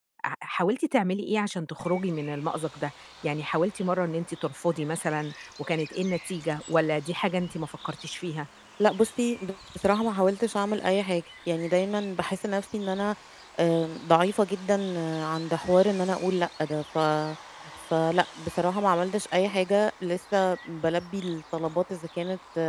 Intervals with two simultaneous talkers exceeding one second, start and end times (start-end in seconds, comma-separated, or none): none